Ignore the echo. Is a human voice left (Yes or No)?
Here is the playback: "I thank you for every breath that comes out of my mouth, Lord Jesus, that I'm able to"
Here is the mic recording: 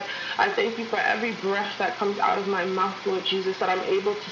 No